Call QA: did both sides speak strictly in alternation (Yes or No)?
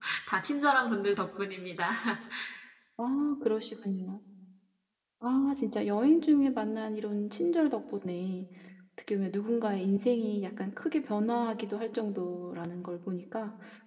Yes